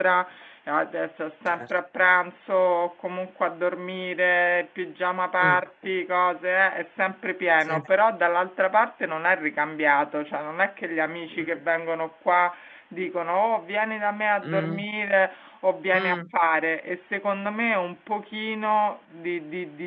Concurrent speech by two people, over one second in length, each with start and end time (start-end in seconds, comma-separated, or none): none